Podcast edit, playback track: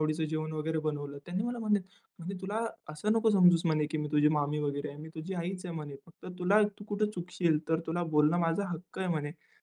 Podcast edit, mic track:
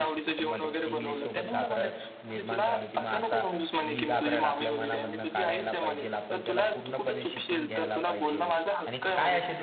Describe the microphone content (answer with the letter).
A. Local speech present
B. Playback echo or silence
A